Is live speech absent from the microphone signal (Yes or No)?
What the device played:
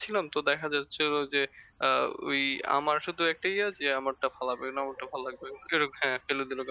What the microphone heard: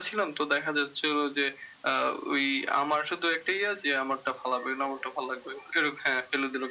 Yes